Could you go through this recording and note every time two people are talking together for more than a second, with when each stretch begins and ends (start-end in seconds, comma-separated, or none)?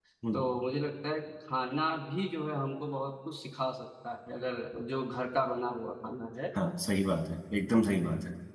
none